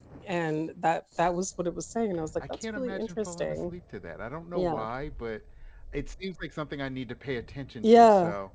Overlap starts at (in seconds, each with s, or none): 2.5 s